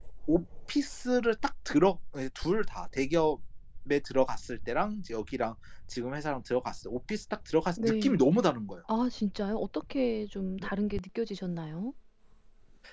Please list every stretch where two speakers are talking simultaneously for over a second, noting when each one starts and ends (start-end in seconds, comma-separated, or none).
none